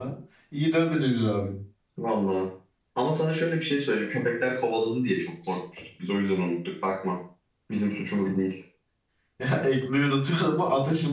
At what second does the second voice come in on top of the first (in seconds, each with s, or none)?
none